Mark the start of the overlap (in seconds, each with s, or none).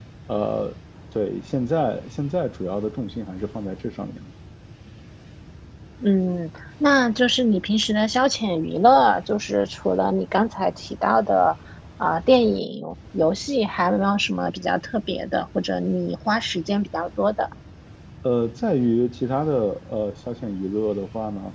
none